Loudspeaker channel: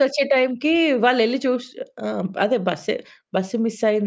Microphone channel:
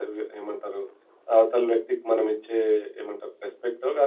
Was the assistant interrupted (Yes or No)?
Yes